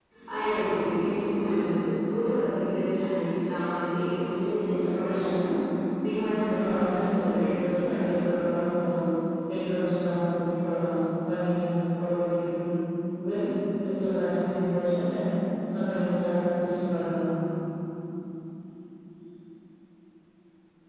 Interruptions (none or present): present